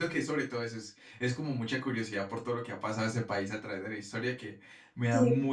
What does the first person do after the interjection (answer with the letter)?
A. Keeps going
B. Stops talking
A